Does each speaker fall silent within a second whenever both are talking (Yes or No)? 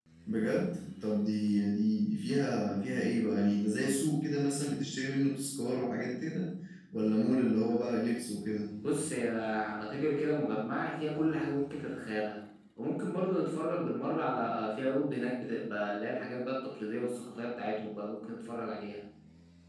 Yes